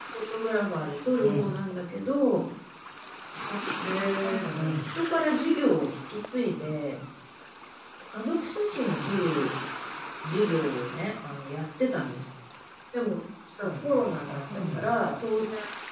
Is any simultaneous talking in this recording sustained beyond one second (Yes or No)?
Yes